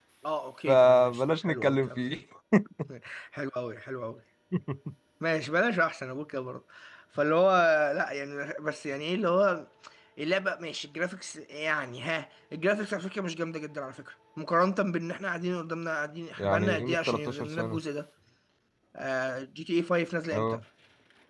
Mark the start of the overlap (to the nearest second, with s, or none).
1 s